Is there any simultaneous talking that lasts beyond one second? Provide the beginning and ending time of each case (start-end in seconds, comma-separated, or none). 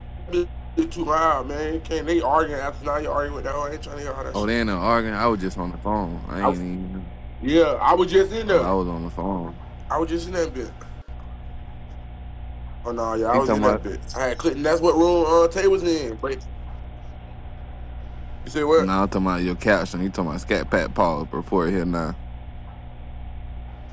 none